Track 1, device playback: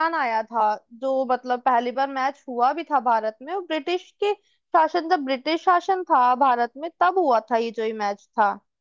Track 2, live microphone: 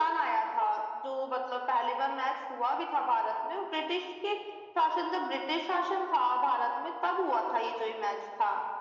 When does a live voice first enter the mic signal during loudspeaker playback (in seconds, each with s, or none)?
none